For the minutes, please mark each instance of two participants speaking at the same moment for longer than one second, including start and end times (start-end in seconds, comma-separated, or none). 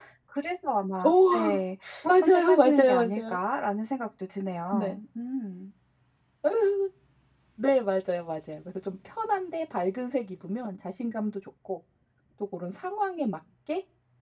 2.2-3.4